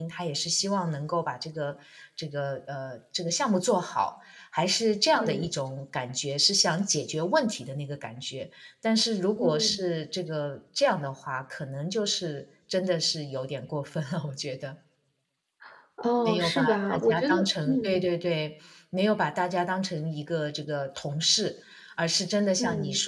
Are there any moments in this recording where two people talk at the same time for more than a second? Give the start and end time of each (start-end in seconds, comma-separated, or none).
16.2-18.0